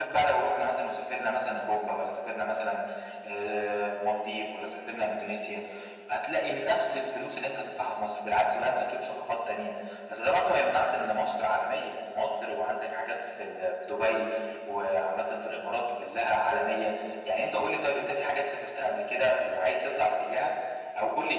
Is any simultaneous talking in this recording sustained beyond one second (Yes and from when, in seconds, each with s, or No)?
No